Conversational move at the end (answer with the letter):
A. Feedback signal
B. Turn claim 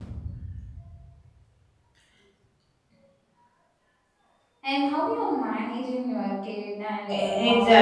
B